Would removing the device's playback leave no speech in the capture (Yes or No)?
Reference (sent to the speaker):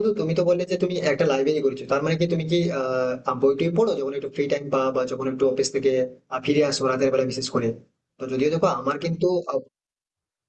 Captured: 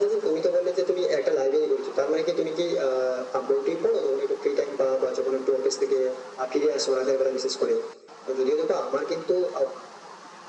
Yes